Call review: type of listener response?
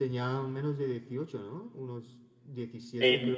taking over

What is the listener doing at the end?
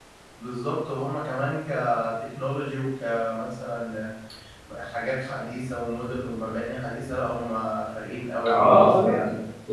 taking over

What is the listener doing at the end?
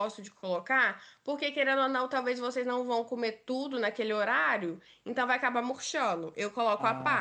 taking over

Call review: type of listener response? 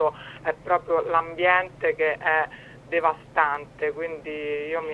taking over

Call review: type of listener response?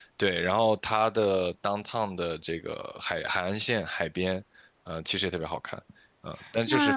taking over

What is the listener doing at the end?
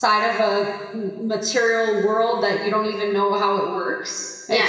taking over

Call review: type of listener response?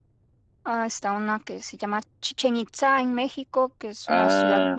taking over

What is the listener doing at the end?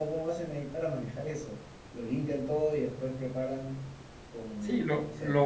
taking over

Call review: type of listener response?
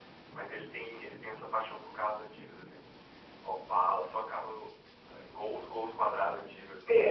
taking over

